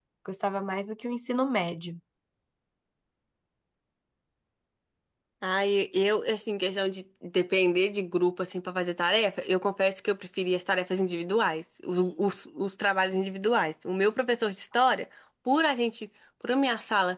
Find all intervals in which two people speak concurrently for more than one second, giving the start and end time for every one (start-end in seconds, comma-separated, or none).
none